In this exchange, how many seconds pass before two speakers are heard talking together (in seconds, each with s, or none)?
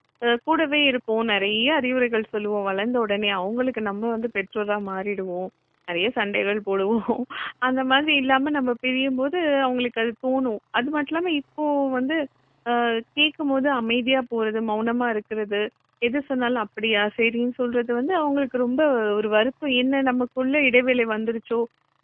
none